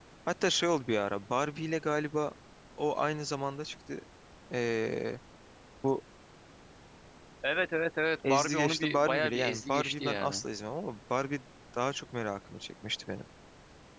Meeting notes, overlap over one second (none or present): present